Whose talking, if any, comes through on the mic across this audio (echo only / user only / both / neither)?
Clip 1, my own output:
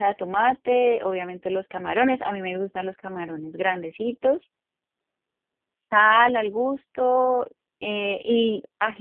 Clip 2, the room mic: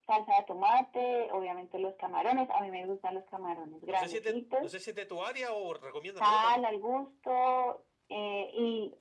both